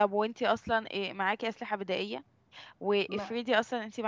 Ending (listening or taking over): listening